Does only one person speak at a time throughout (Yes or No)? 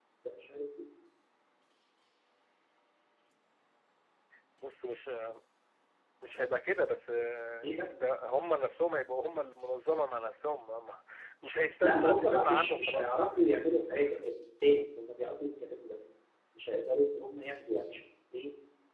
No